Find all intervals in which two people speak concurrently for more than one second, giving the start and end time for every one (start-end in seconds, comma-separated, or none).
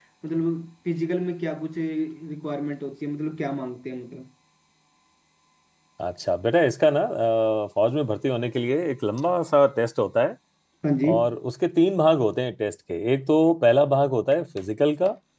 none